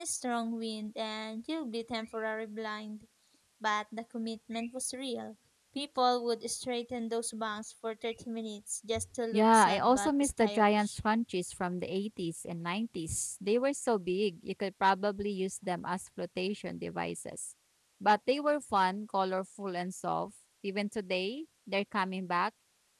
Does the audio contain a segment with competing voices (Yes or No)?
Yes